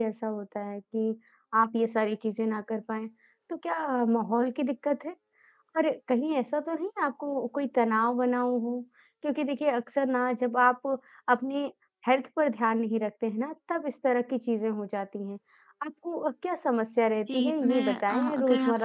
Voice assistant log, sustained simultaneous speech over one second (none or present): present